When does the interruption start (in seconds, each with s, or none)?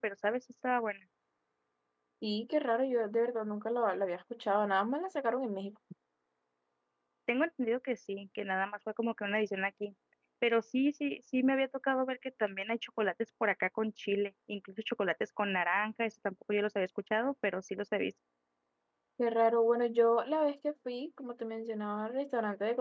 none